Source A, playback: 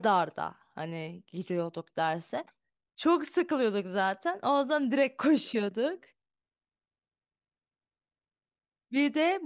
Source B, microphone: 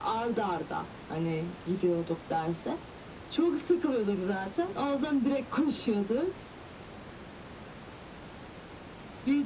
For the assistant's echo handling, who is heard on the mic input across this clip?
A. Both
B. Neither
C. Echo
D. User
C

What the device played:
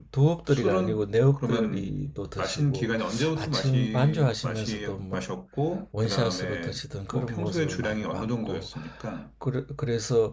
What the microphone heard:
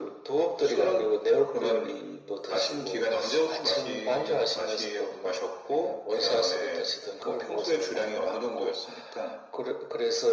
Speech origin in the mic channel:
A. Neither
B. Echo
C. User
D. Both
B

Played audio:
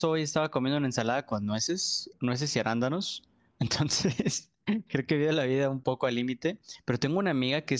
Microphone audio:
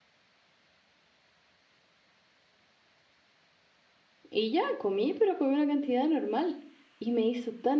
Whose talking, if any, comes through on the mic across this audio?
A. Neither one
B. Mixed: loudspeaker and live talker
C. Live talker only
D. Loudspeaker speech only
C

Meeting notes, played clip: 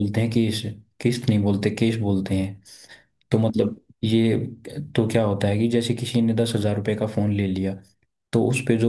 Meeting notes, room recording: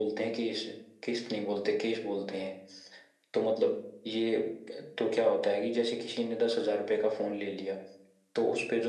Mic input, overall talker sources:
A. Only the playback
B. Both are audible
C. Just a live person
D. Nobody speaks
A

